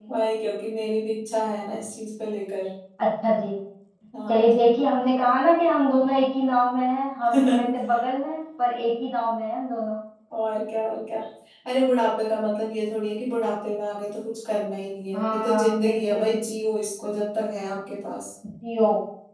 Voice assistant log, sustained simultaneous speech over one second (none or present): present